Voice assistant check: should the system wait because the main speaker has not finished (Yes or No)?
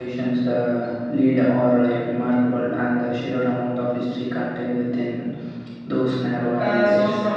No